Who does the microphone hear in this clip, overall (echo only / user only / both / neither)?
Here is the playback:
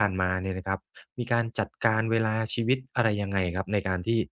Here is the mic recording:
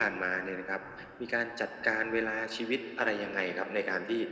echo only